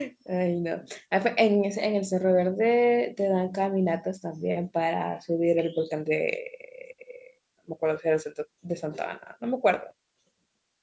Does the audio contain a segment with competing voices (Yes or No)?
No